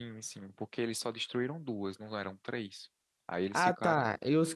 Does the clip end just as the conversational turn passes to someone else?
Yes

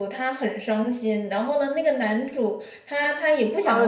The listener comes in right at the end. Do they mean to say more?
Yes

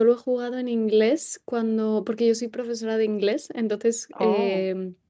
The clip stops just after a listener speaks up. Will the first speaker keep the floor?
Yes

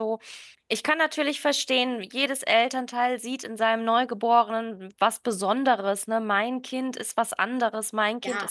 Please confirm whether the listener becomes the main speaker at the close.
No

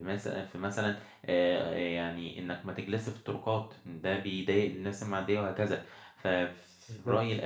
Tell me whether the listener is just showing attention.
Yes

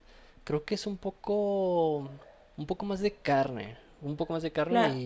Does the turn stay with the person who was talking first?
No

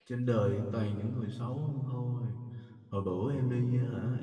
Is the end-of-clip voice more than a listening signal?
No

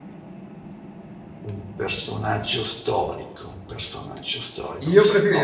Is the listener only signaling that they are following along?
No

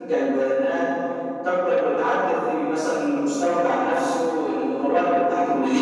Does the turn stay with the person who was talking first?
No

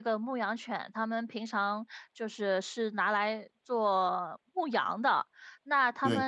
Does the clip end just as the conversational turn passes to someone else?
No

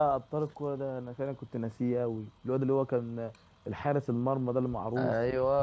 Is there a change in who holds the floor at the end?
Yes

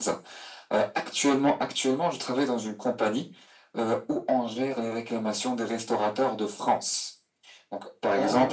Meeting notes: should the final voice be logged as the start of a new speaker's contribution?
No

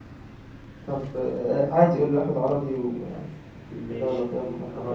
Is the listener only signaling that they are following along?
No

